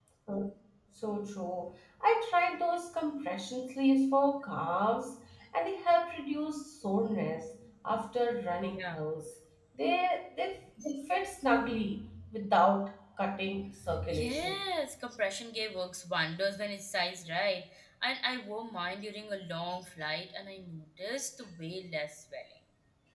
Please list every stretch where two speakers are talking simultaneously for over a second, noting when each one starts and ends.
none

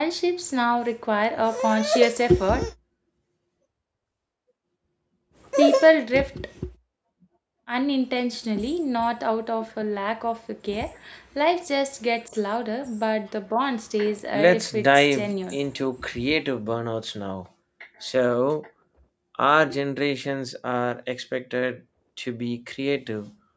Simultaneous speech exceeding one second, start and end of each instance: 14.3-15.6

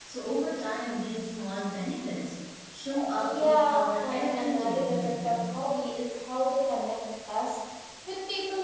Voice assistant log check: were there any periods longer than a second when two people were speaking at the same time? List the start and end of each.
3.4-5.3

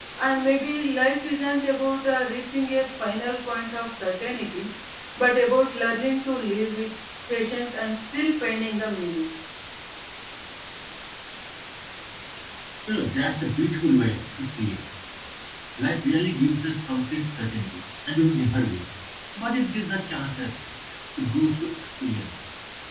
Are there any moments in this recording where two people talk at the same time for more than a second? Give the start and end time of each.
none

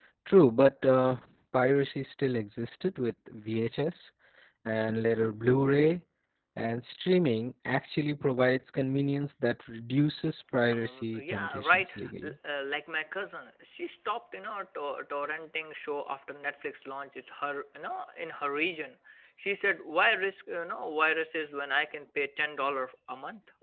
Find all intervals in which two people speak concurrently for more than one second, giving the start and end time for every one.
10.7-12.3

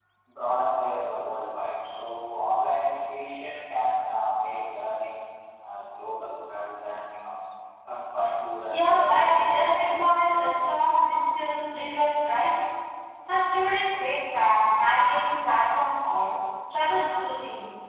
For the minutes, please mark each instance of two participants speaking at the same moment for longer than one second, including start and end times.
8.7-10.3

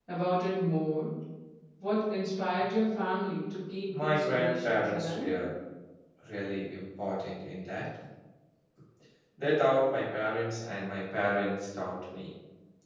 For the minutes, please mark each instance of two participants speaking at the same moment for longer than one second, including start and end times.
3.9-5.3

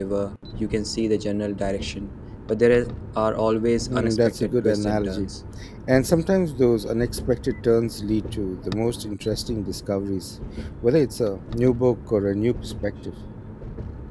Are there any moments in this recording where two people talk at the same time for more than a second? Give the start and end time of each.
3.8-5.3

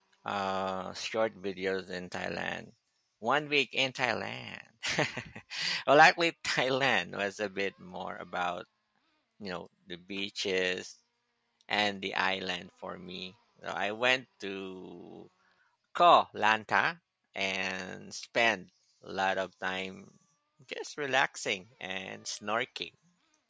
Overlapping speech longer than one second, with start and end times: none

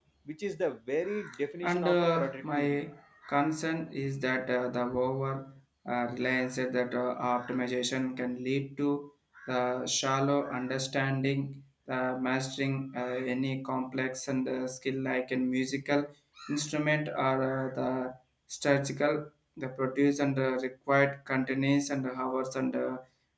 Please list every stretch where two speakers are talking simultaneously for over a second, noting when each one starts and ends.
1.6-2.9

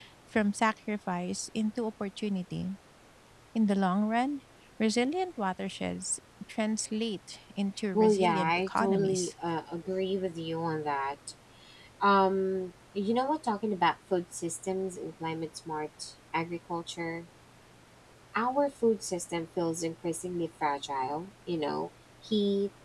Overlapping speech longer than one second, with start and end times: 7.9-9.3

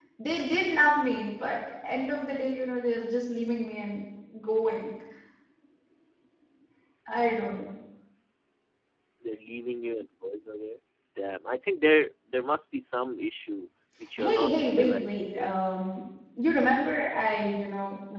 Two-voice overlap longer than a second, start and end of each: 14.2-15.5

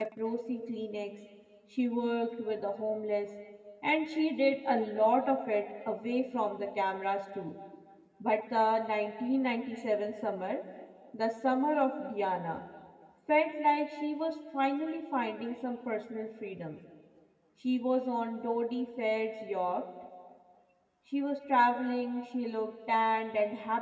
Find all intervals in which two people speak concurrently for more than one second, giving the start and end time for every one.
none

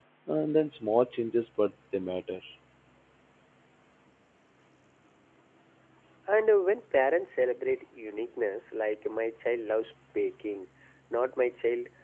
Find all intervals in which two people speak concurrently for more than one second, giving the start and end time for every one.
none

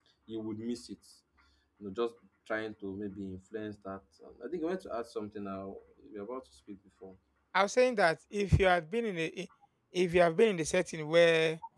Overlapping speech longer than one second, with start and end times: none

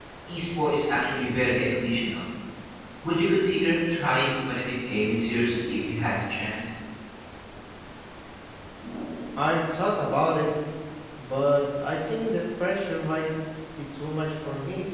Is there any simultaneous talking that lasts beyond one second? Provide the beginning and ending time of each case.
none

